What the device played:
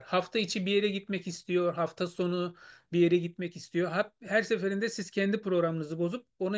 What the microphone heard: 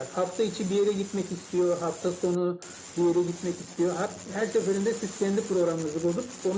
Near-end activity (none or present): none